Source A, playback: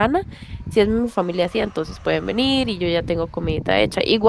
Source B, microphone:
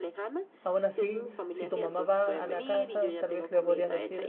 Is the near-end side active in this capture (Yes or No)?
Yes